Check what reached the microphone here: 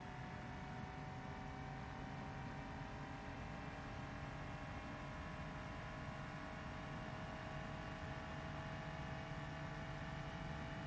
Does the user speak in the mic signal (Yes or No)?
No